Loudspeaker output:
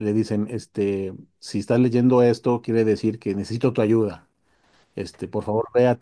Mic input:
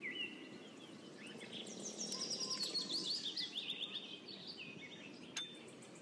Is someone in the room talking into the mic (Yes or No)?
No